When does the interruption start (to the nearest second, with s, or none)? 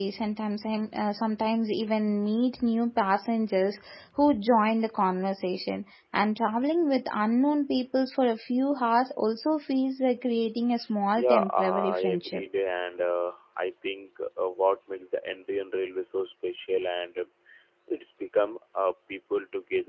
11 s